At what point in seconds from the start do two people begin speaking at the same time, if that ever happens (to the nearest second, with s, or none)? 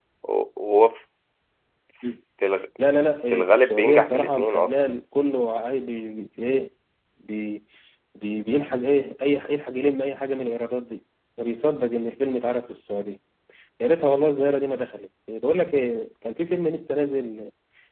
3 s